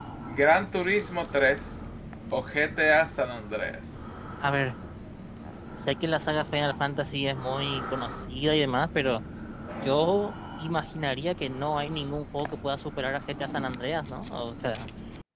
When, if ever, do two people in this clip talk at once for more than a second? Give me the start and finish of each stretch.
none

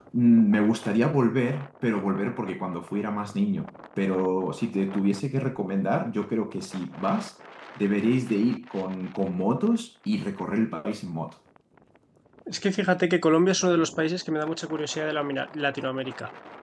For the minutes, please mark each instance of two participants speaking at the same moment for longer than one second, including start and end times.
none

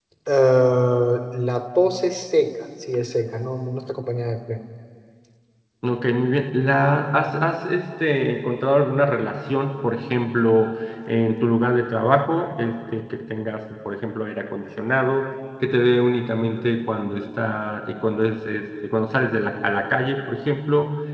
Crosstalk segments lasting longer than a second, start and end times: none

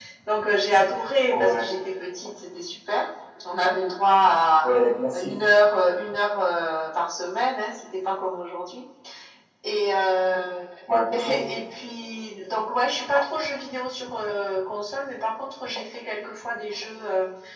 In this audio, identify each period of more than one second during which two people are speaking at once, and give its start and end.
none

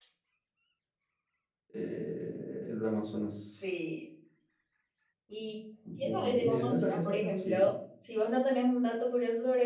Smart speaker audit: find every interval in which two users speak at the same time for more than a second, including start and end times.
6.0-7.7

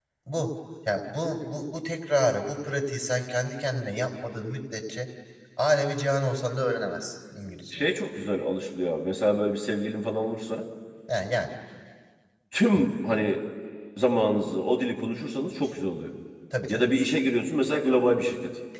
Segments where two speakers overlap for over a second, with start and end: none

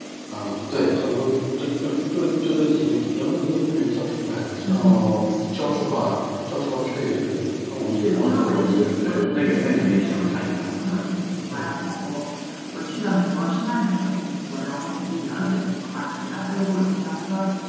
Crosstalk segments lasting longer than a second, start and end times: 8.0-10.7

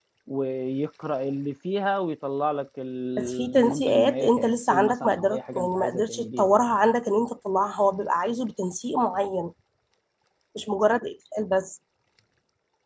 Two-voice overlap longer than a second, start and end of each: 3.2-6.6

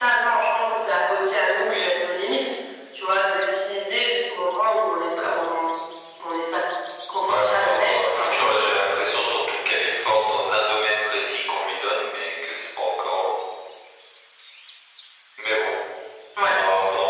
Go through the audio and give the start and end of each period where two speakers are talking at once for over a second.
7.3-8.7

